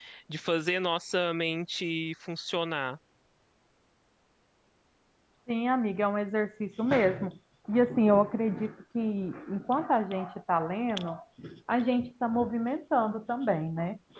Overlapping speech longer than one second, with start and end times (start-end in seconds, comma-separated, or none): none